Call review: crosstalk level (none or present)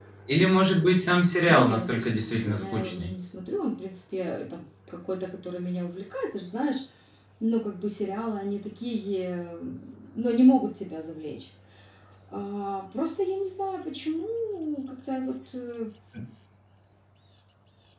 present